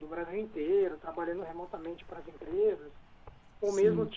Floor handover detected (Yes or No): No